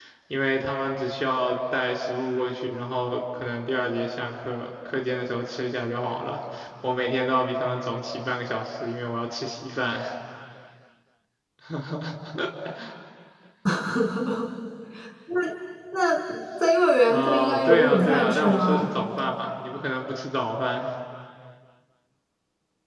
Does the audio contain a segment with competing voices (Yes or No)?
Yes